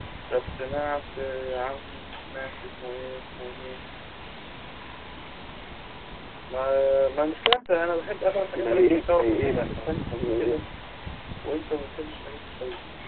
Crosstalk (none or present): present